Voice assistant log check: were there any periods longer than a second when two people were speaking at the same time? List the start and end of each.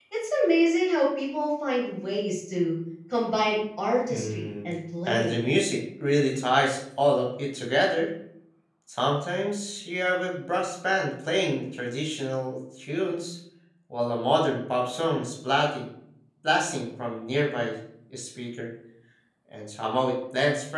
none

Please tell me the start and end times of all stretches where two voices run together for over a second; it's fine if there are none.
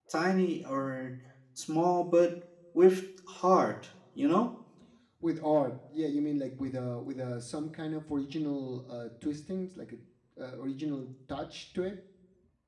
none

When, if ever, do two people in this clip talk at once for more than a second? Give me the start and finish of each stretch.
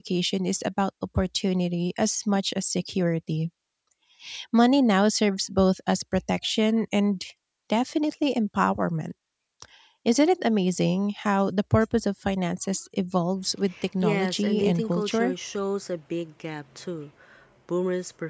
14.0-15.3

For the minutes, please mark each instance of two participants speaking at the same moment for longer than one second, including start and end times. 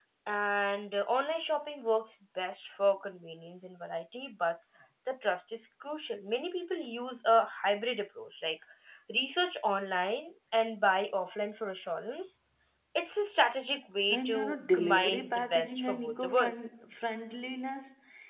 14.1-16.6

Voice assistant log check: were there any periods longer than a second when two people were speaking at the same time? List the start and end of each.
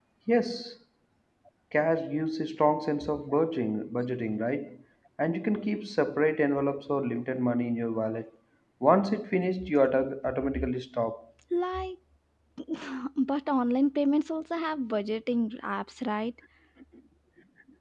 none

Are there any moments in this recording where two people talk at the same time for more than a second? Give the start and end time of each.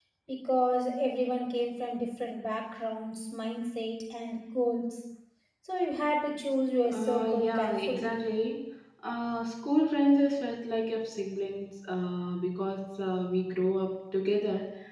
6.9-8.2

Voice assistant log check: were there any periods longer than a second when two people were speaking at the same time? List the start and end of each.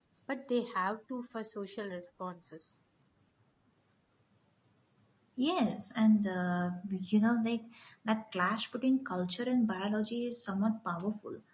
none

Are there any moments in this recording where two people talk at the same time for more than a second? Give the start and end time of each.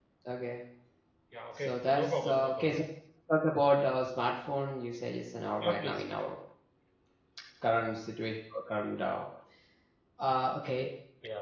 1.5-2.8

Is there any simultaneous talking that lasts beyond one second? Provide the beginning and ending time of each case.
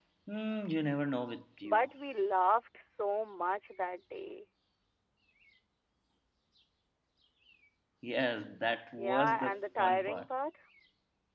9.0-10.2

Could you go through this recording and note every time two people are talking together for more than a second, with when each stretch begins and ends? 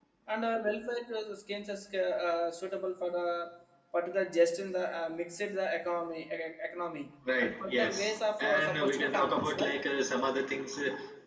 7.4-9.7

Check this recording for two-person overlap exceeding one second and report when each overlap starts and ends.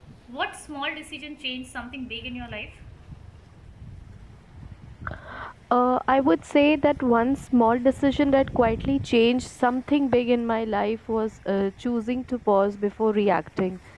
none

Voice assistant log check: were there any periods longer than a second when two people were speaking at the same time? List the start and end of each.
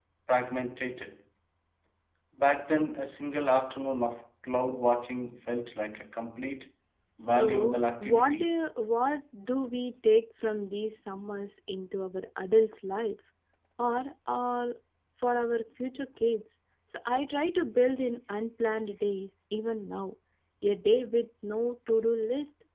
7.2-8.5

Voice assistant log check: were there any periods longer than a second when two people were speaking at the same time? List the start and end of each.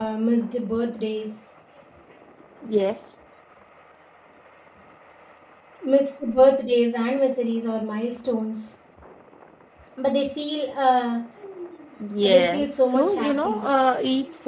12.2-13.6

